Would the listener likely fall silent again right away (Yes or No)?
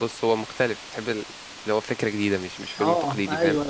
No